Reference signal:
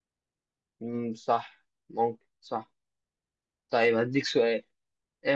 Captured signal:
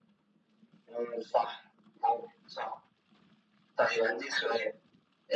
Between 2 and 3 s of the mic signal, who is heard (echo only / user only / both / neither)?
echo only